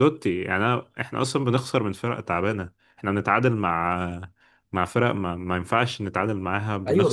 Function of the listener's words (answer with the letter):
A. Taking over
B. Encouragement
A